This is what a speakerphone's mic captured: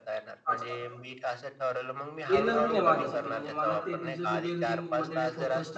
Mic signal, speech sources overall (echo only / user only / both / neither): both